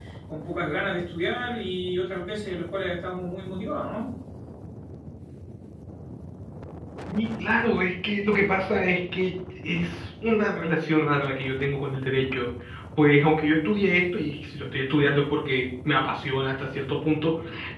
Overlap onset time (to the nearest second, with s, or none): none